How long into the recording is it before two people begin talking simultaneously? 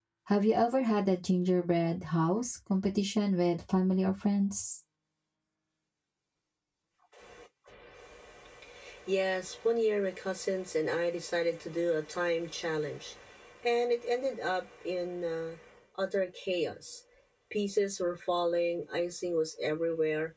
none

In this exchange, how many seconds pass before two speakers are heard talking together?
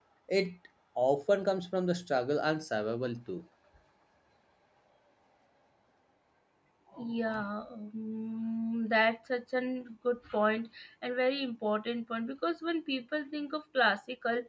none

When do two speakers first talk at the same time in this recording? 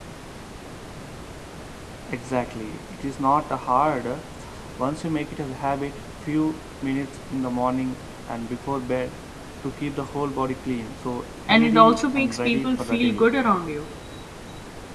11 s

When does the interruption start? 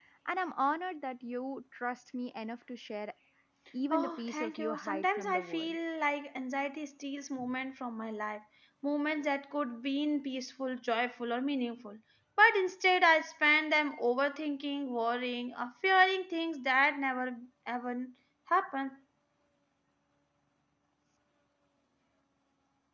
4 s

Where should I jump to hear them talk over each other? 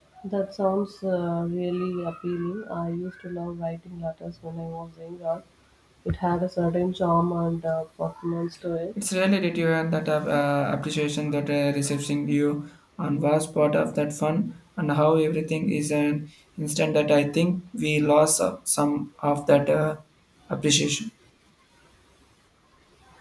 none

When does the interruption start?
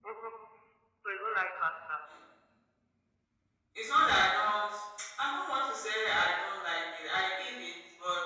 none

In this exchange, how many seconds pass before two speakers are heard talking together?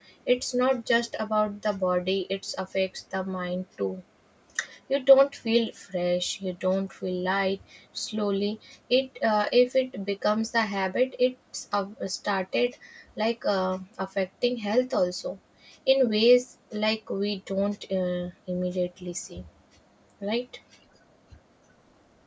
none

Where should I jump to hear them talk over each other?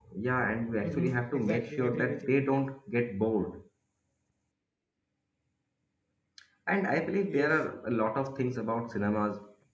1 s

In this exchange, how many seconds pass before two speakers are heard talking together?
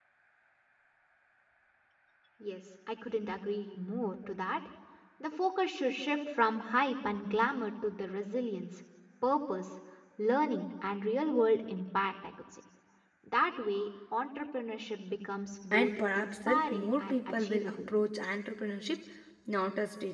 16 s

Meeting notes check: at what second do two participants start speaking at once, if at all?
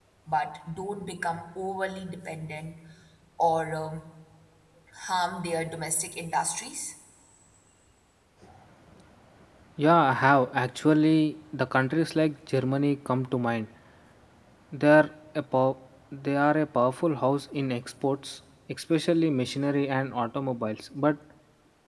none

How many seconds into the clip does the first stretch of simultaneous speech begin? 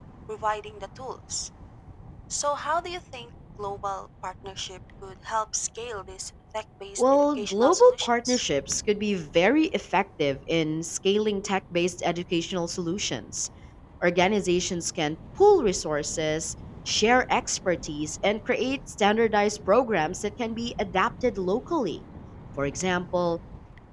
7 s

